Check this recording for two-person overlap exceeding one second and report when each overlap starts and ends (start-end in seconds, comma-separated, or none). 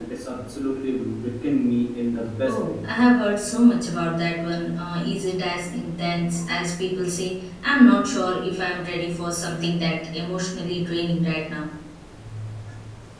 none